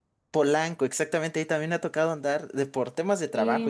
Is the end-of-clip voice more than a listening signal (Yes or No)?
No